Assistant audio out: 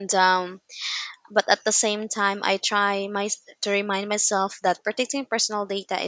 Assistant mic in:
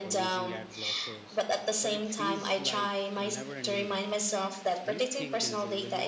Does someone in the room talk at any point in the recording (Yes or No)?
Yes